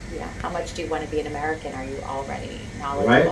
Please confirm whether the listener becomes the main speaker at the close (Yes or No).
Yes